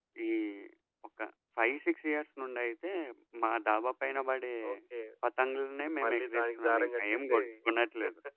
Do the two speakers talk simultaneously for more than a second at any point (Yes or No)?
Yes